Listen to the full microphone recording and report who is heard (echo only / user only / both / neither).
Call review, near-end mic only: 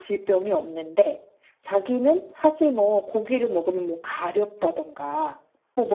echo only